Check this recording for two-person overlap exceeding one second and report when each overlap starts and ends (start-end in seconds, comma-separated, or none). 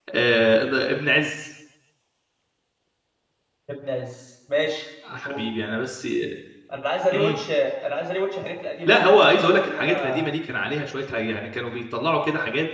8.9-10.3